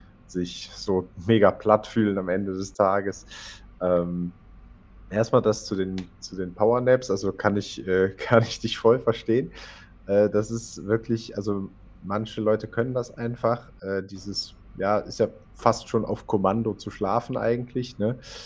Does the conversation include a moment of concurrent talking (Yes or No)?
No